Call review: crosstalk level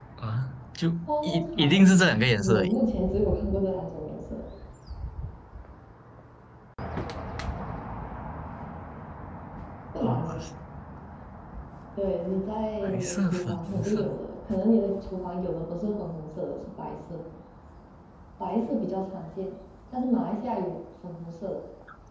present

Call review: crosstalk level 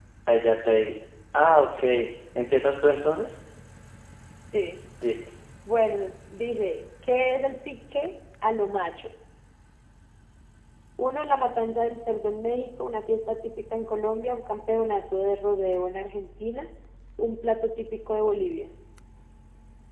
none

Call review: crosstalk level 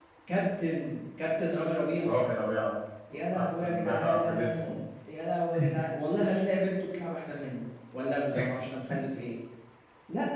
present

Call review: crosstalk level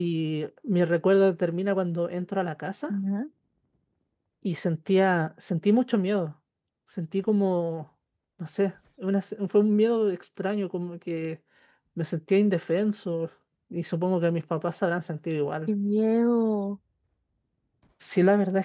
none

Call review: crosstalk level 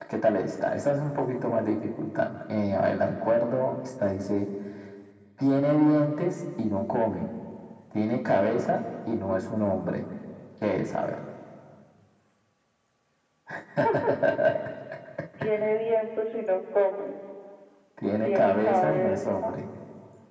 present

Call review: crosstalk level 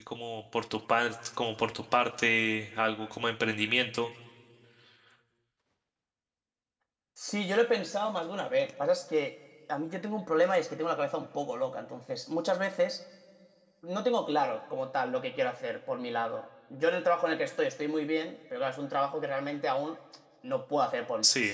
none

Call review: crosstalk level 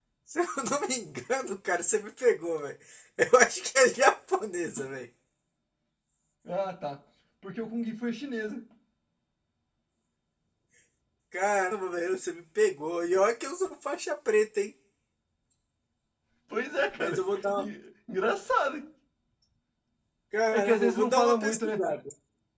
present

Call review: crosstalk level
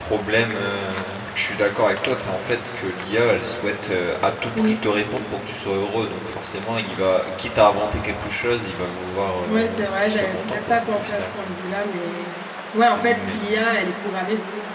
present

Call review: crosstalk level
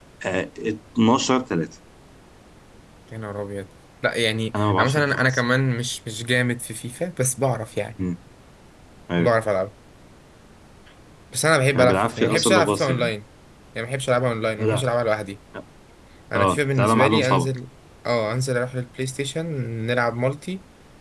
present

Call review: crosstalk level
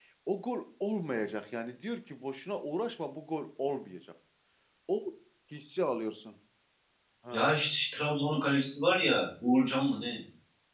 none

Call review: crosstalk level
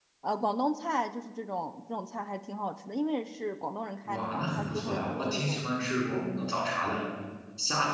present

